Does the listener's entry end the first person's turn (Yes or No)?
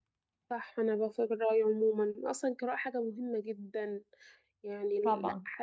No